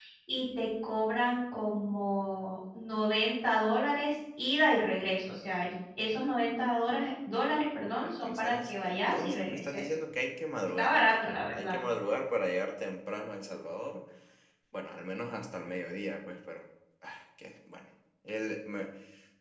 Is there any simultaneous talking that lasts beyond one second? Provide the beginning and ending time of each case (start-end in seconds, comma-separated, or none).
8.0-9.8